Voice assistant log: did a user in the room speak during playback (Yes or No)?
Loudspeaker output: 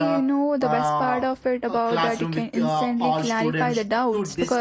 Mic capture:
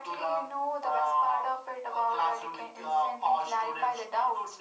No